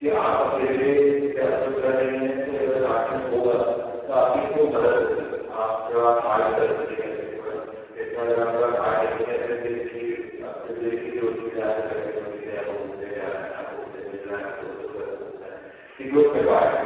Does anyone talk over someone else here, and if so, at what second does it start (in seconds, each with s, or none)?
none